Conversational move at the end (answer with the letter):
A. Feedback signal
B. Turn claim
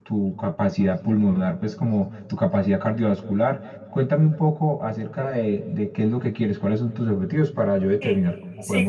B